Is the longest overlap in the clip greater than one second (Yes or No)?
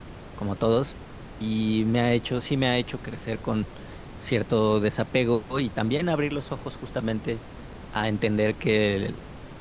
No